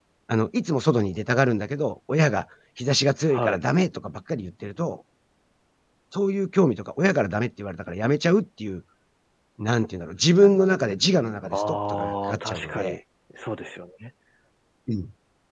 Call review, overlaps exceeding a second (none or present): present